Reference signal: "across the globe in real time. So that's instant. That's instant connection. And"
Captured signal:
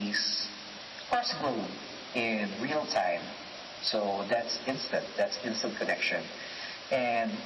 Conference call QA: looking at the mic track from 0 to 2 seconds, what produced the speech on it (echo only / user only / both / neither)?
echo only